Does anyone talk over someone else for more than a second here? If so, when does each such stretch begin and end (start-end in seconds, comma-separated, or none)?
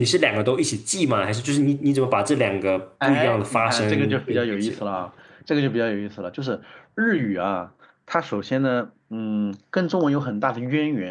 3.0-4.8